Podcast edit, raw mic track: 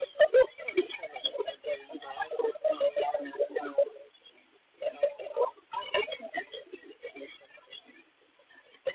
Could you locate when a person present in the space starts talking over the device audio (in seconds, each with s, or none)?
none